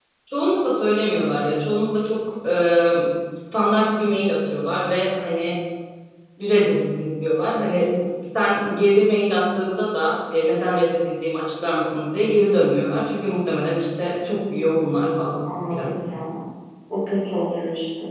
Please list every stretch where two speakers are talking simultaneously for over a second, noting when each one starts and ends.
14.5-16.0

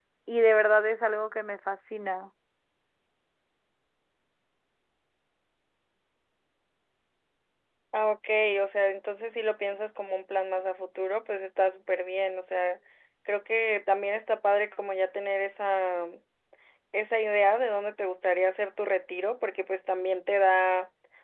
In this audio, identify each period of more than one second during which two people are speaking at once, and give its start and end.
none

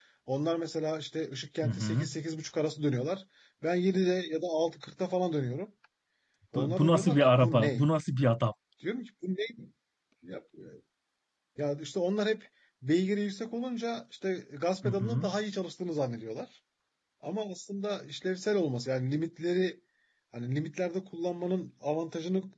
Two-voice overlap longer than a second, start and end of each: 6.5-7.8

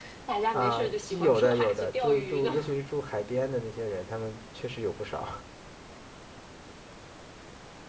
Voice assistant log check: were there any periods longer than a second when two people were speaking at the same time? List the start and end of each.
0.5-2.5

